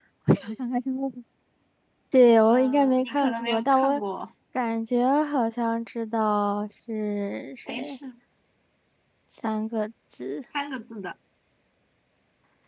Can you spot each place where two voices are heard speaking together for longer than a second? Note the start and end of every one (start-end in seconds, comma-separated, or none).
2.5-4.0